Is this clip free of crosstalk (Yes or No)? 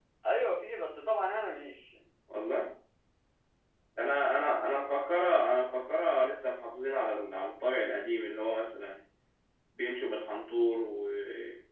Yes